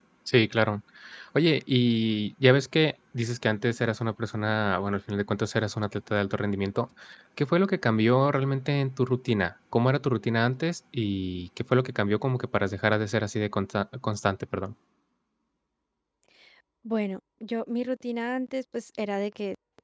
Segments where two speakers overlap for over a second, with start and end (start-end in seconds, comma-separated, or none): none